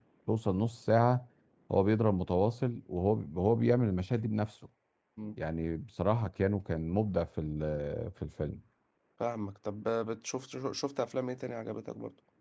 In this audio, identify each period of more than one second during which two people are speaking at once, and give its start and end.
none

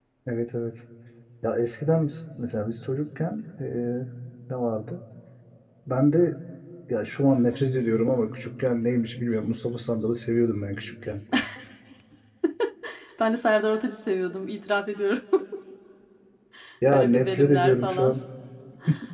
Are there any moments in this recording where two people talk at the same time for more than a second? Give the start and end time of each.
16.9-18.1

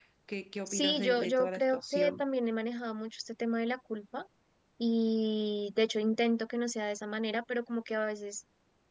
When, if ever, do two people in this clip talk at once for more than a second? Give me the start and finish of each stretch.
0.7-2.2

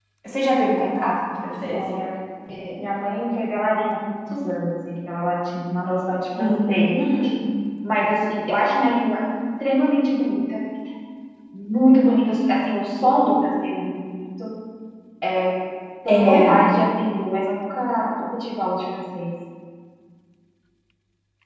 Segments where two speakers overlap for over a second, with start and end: none

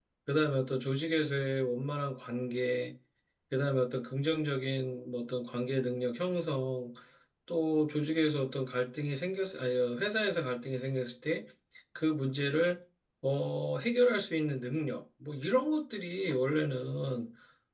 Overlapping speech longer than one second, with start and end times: none

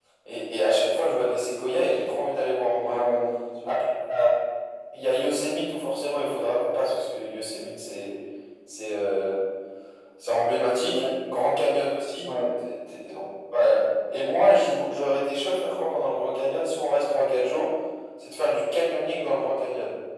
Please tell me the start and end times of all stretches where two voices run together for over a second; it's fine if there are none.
none

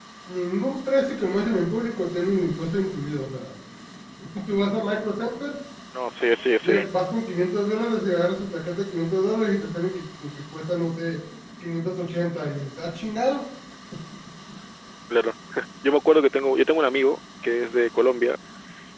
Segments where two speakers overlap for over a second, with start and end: none

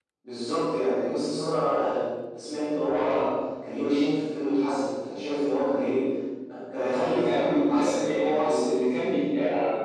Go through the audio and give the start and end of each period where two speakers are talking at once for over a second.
6.9-9.2

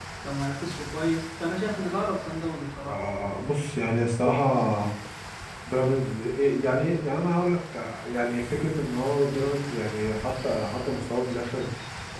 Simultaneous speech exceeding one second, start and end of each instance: none

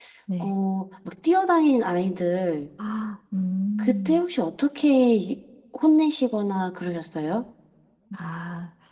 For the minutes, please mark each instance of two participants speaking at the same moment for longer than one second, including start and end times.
none

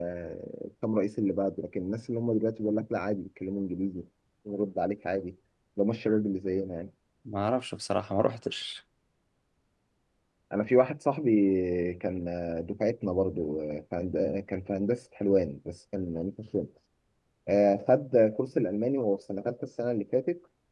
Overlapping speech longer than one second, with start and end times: none

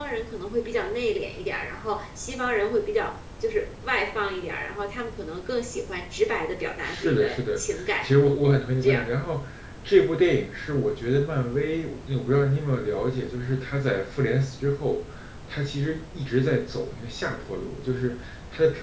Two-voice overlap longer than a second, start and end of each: 6.8-8.1

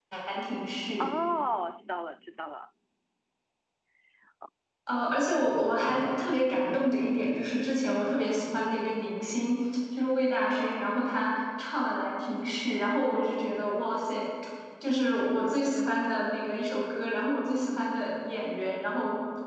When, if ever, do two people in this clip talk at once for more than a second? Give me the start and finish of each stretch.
none

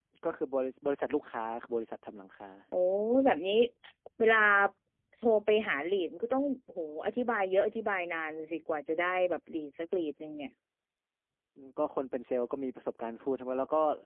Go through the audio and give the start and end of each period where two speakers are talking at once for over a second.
none

